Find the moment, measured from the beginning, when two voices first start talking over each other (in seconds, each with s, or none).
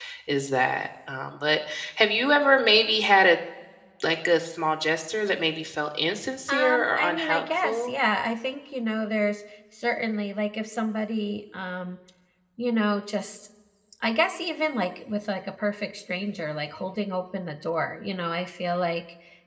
6.5 s